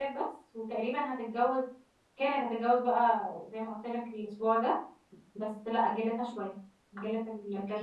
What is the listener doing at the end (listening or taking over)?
taking over